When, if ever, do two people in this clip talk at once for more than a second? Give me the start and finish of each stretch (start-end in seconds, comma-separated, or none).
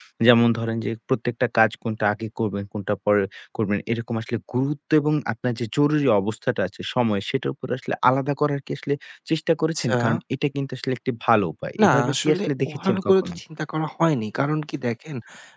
11.8-13.4